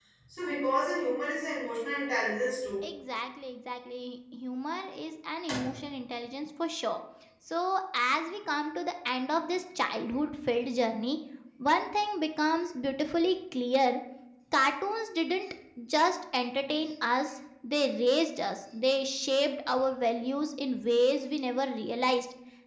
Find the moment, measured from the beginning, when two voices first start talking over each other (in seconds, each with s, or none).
none